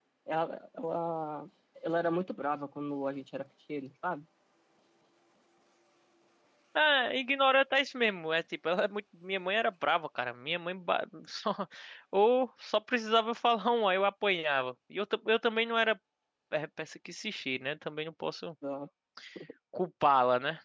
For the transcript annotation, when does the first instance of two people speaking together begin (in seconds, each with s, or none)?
none